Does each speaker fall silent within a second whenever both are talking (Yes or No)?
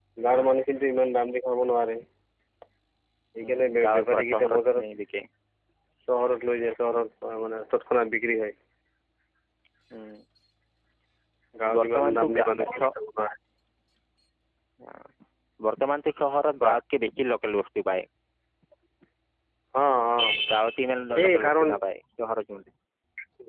No